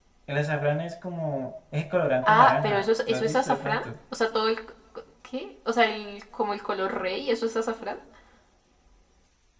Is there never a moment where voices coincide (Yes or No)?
No